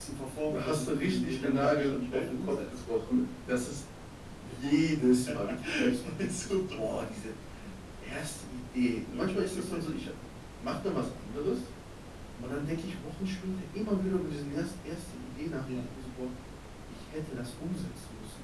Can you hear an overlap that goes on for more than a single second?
Yes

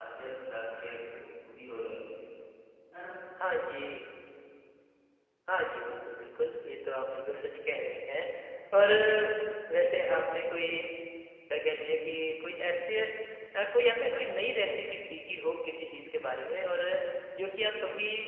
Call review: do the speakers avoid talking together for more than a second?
Yes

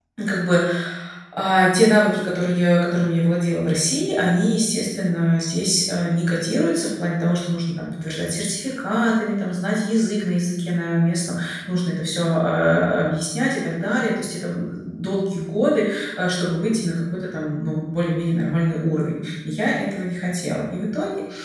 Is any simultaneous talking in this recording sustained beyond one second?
No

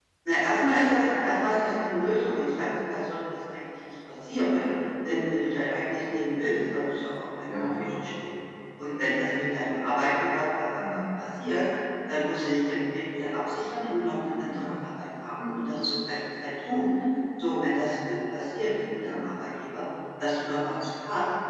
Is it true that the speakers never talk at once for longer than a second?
Yes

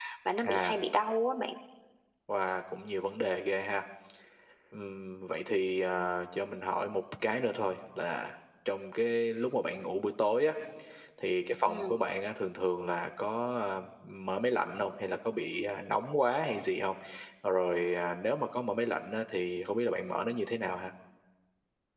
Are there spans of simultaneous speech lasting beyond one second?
No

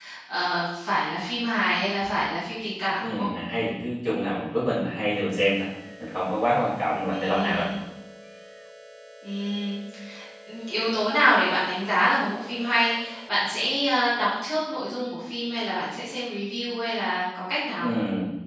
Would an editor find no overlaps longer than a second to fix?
Yes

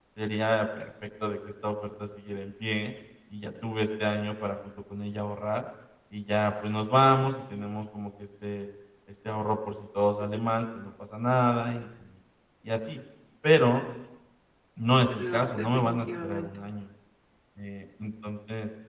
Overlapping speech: Yes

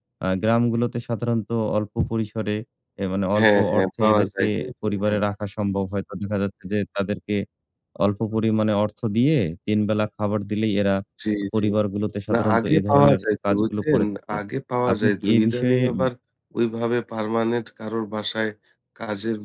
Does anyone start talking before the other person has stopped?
Yes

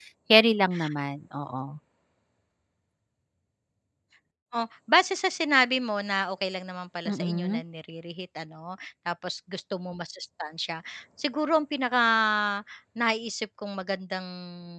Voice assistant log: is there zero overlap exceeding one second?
Yes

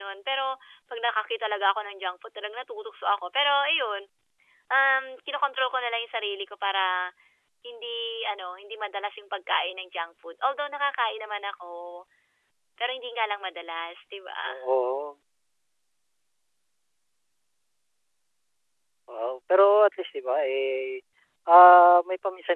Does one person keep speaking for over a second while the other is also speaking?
No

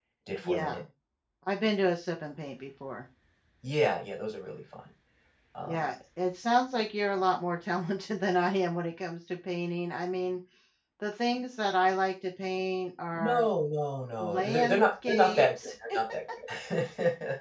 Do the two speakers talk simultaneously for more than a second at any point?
Yes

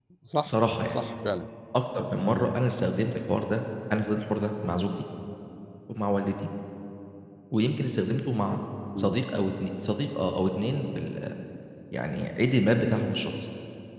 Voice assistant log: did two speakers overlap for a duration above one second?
No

